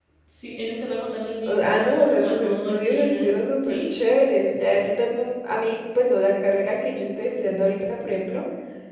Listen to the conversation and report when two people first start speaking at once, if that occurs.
1.4 s

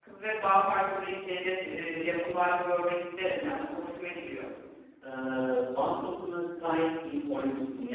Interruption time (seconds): none

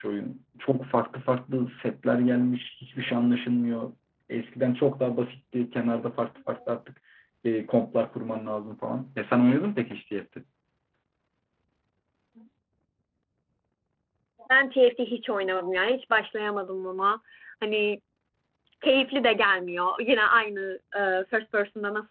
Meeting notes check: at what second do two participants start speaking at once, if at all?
none

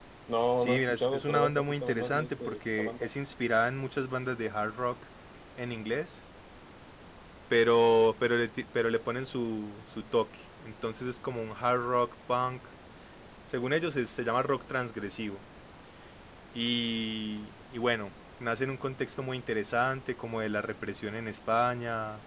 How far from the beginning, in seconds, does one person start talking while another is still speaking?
0.6 s

